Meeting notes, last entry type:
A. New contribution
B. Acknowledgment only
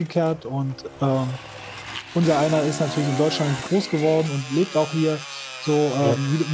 B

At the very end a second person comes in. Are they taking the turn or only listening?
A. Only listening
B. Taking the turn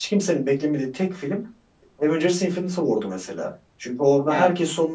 A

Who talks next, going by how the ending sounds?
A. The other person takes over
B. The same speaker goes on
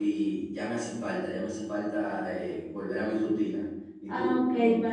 A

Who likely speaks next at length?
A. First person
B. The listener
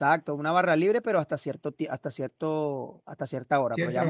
A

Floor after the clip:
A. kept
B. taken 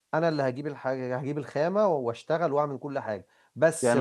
B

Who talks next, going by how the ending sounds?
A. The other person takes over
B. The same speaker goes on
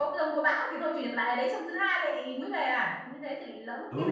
A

